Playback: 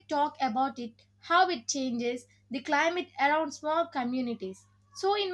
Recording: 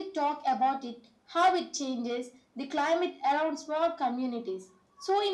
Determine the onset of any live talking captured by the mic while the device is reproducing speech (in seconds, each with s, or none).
none